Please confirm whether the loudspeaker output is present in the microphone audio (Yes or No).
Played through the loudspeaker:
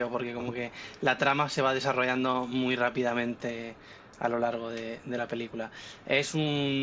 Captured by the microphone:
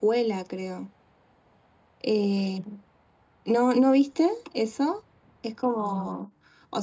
No